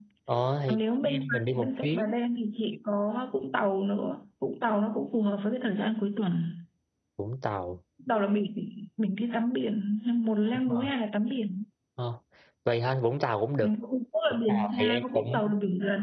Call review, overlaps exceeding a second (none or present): present